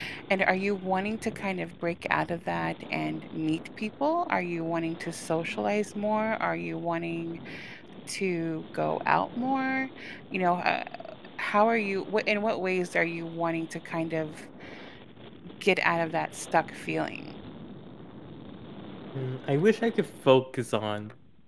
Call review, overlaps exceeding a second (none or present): none